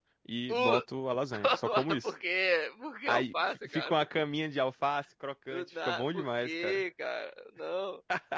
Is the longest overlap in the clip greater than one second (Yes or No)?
Yes